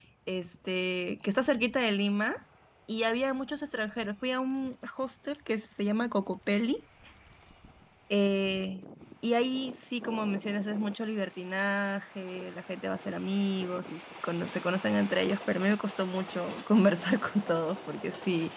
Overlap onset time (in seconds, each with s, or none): none